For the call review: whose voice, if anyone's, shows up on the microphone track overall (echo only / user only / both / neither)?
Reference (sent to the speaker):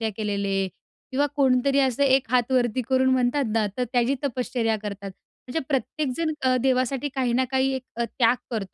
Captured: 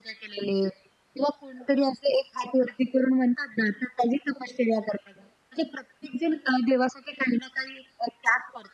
echo only